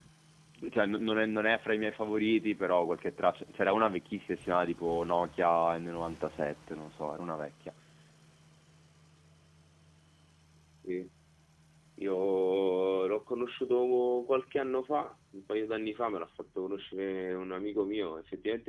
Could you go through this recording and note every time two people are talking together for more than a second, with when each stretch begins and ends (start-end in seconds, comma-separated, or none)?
none